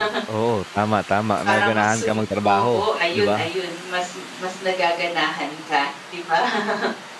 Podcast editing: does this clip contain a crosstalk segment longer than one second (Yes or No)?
Yes